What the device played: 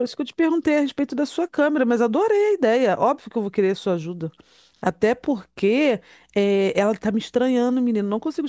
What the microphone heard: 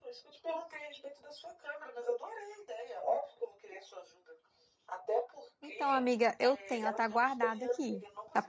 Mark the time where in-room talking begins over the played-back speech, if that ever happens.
5.6 s

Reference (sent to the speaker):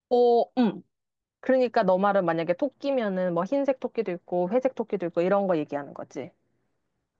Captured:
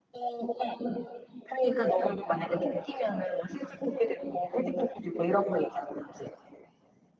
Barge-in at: none

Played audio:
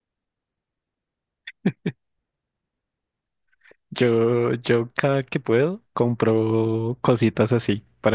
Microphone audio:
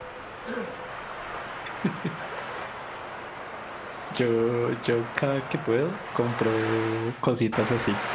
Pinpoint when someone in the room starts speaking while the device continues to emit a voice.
none

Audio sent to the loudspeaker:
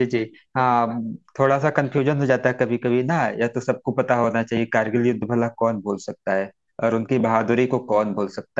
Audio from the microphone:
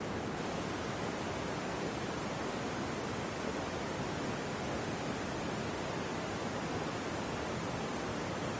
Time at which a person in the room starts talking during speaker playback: none

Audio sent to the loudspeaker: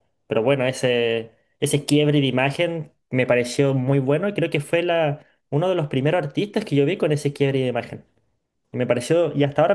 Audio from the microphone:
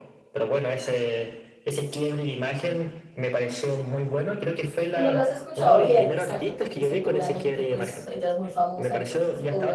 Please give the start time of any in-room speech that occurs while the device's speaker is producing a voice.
4.9 s

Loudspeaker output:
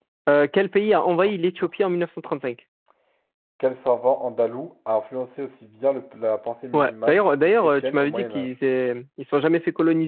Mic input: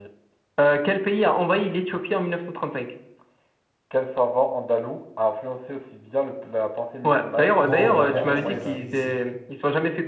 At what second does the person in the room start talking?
7.6 s

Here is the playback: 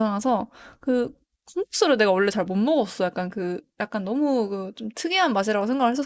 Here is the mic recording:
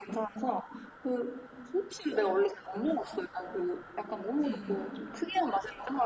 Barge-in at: 4.4 s

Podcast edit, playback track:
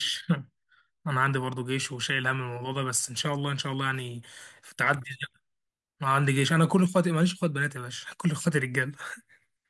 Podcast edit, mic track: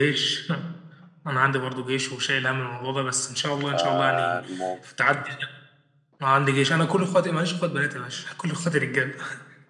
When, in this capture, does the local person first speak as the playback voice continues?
3.5 s

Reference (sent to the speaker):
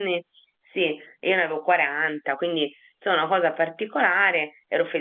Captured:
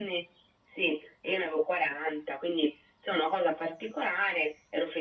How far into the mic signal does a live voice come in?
none

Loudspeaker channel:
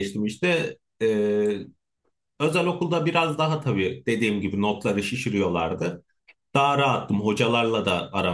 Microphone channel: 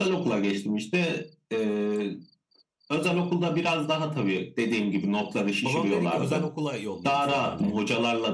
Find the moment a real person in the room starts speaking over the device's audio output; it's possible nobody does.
5.6 s

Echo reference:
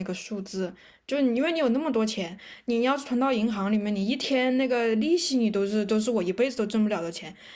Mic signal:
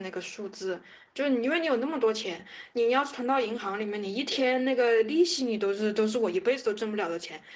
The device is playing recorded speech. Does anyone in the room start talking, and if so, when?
none

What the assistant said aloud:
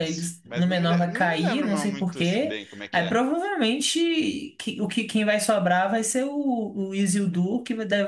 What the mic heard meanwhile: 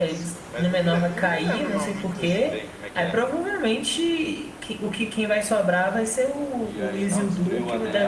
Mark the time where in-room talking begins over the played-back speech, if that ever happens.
6.6 s

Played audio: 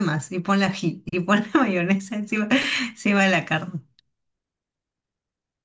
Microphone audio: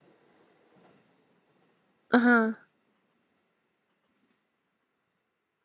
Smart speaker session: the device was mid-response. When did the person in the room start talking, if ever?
2.1 s

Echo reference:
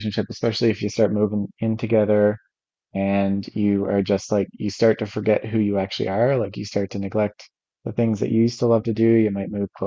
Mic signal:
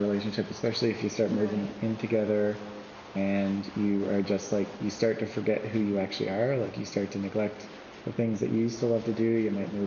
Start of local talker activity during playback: 1.3 s

